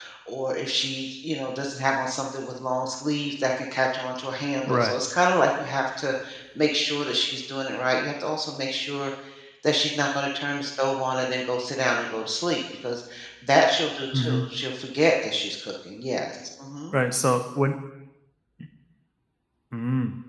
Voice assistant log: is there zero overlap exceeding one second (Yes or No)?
Yes